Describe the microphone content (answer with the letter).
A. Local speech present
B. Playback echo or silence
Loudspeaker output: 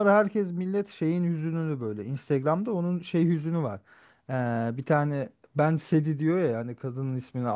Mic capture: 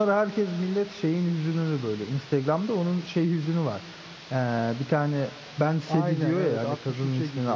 A